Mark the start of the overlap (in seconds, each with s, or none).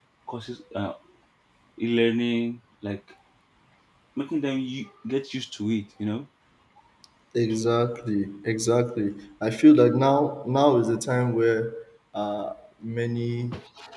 none